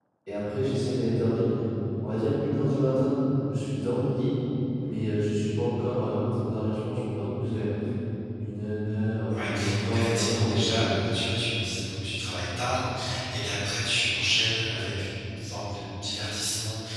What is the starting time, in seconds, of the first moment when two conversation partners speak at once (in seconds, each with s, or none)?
9.3 s